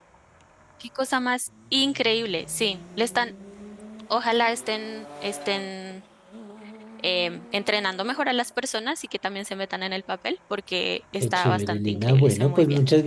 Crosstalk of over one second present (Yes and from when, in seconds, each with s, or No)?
Yes, from 11.2 s